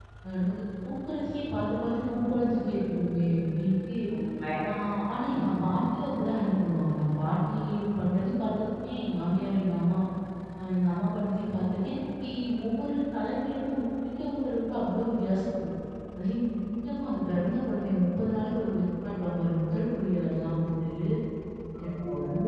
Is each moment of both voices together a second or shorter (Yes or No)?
Yes